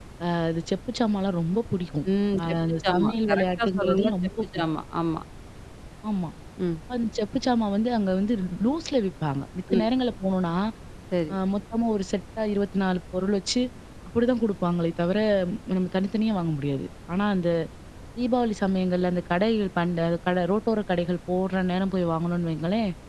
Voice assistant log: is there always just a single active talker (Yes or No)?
No